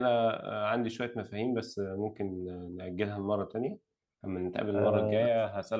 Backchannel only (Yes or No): Yes